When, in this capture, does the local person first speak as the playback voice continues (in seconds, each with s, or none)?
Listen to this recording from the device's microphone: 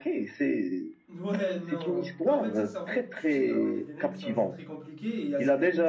1.1 s